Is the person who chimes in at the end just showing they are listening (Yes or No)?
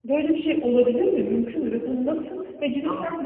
Yes